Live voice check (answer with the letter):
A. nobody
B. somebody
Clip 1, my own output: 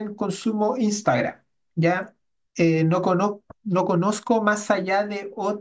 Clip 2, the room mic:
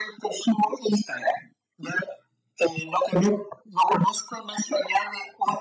A